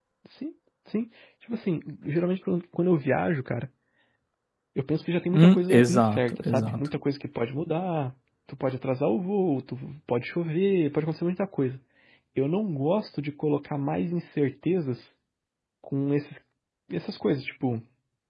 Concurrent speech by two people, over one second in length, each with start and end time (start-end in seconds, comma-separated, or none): 5.3-6.9